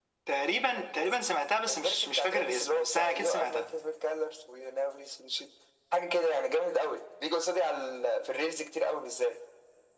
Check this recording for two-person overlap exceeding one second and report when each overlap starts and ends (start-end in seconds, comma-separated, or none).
1.7-3.7